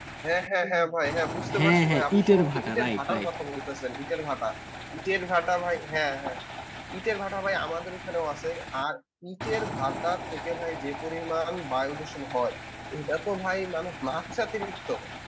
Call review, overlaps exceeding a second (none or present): present